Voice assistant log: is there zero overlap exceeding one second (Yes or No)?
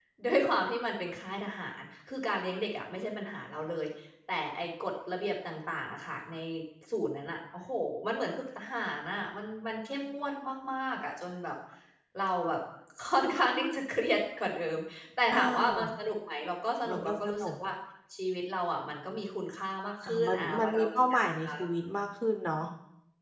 No